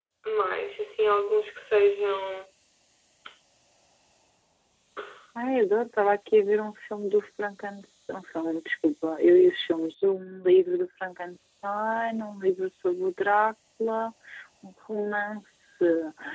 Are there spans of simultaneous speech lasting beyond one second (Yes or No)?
No